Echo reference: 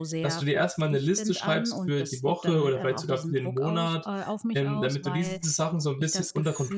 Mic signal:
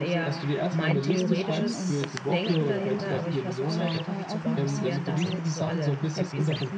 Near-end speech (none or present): present